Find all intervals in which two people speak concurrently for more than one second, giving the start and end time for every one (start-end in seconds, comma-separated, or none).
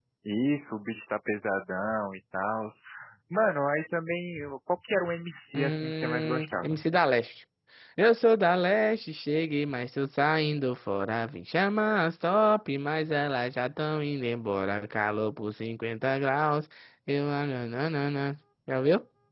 5.5-6.7